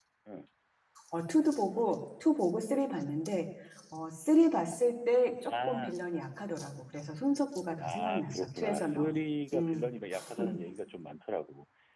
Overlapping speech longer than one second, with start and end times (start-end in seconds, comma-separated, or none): 7.8-9.1